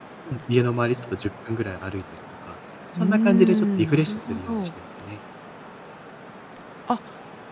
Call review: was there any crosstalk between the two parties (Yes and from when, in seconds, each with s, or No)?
Yes, from 3.0 s